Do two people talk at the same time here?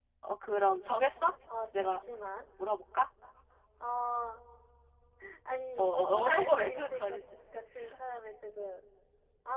Yes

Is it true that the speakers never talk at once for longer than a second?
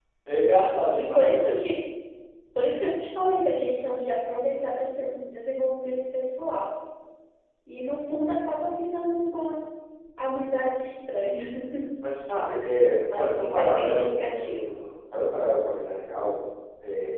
No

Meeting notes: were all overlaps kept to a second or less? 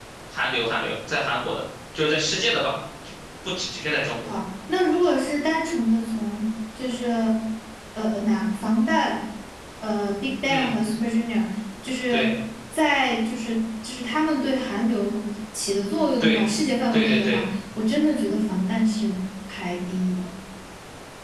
Yes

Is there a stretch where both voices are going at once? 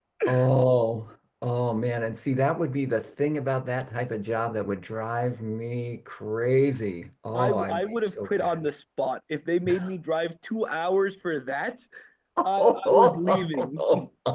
Yes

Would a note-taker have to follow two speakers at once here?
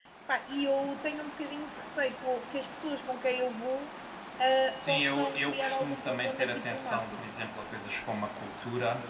Yes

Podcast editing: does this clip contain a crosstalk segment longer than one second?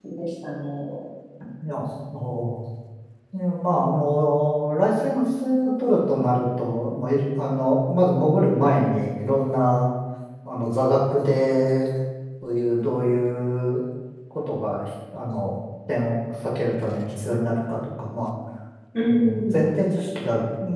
No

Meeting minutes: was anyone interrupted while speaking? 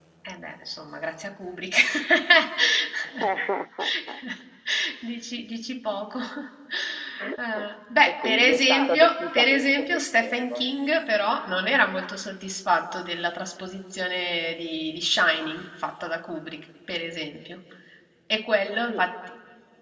Yes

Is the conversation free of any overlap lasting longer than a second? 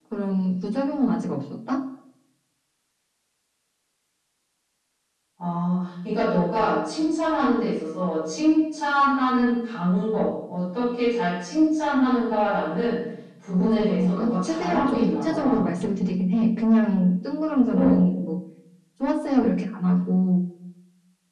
No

